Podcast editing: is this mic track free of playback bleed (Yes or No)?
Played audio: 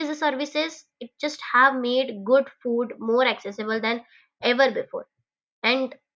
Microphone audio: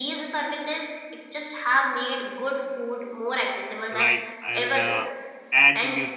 No